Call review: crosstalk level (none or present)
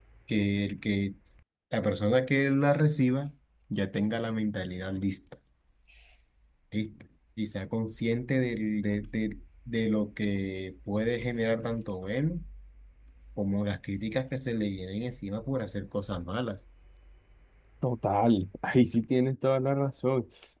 none